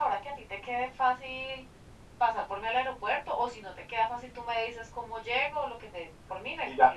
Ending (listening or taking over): taking over